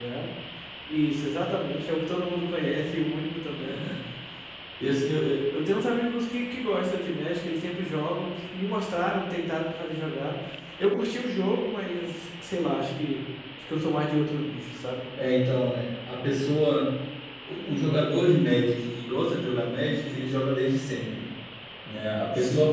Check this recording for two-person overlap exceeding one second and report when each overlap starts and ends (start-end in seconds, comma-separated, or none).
none